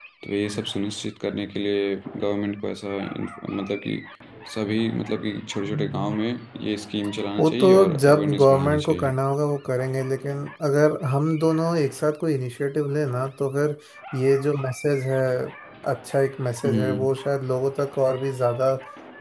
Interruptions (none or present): present